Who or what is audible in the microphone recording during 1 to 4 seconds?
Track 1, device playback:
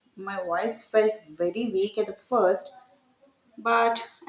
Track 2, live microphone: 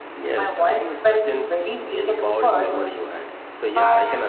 both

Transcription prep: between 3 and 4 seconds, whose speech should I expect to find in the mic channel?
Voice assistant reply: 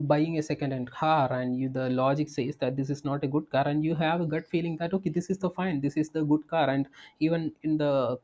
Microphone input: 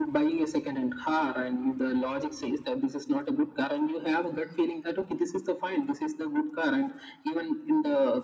echo only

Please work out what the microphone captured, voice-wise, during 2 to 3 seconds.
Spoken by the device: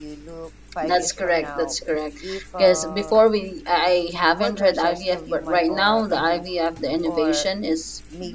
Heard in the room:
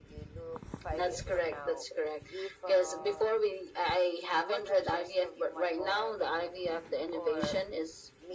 echo only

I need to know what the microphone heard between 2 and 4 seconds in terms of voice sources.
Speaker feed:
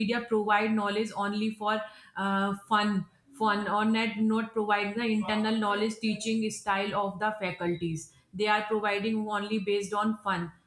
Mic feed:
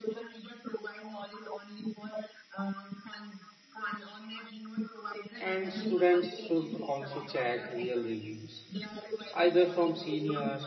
echo only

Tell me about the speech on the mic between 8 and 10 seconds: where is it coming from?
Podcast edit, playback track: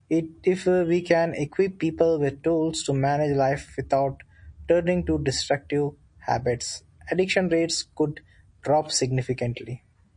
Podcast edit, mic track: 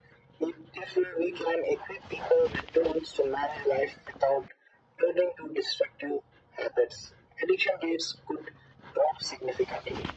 echo only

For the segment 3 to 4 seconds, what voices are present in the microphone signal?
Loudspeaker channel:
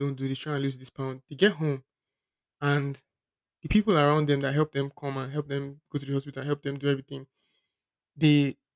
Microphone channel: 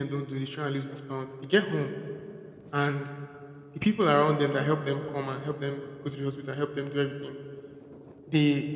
echo only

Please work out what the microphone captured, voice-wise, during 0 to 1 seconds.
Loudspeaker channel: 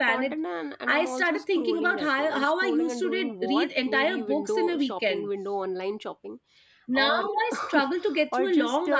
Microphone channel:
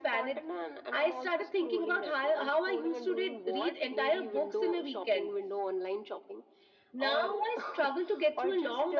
echo only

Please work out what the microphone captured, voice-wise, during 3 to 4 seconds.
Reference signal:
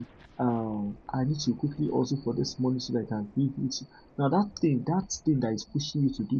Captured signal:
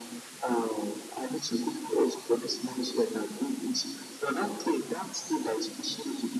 echo only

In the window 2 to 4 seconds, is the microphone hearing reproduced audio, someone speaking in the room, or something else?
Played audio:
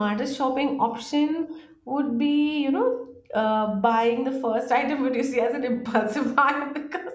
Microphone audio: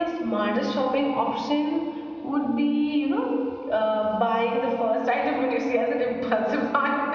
echo only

